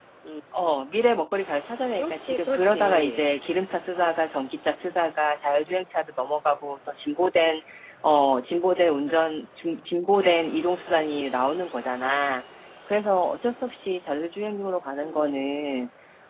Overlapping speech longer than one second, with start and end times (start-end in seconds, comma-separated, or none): 2.0-3.3